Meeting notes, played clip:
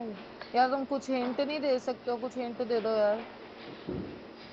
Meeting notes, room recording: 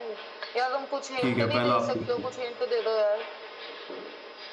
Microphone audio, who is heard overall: both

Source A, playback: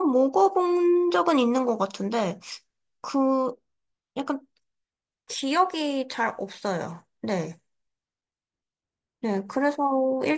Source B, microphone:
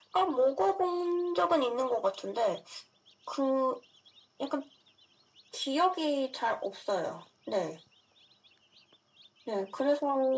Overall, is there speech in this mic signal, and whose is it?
echo only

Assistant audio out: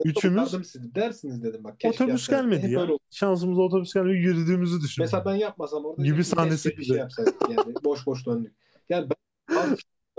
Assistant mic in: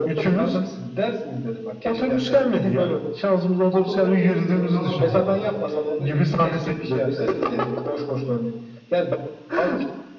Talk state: both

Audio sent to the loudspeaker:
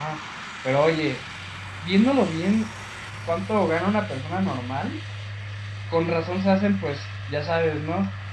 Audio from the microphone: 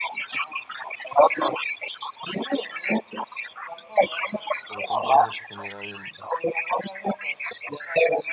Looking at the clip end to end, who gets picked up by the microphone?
both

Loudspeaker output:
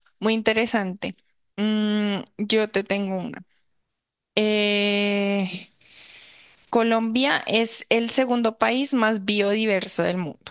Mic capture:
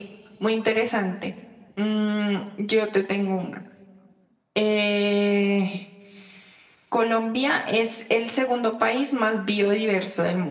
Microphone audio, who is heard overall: echo only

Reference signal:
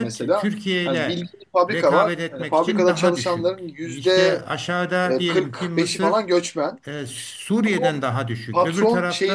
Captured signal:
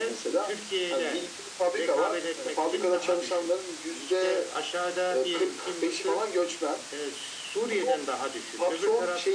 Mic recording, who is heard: echo only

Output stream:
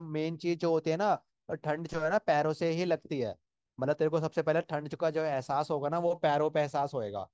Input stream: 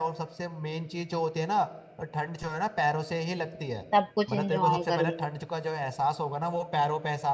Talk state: both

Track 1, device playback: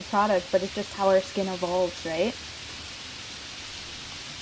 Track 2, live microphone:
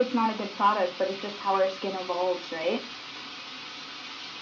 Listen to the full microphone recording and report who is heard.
echo only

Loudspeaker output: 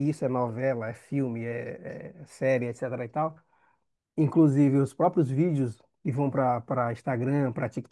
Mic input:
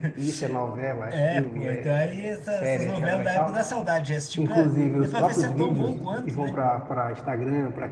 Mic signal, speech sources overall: both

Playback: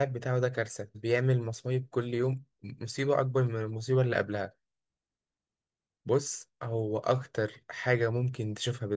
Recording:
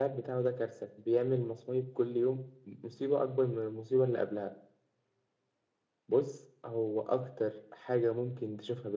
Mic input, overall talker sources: echo only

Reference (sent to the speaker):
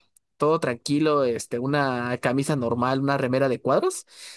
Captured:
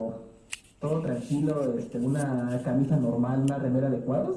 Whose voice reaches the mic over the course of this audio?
echo only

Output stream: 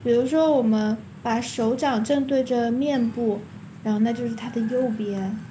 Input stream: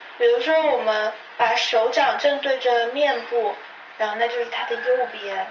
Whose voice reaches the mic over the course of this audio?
echo only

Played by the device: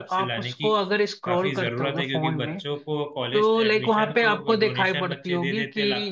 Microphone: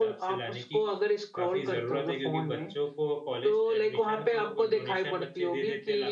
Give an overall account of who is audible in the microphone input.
echo only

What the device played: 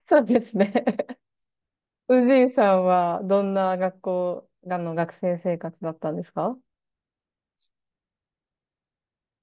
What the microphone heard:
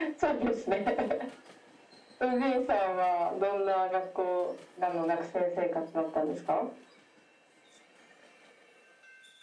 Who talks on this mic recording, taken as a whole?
echo only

